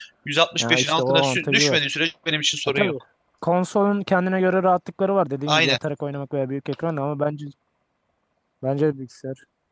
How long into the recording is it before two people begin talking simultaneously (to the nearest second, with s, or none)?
1 s